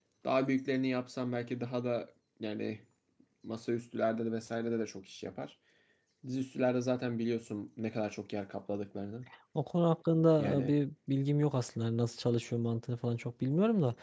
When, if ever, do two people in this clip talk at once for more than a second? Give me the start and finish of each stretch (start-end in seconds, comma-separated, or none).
none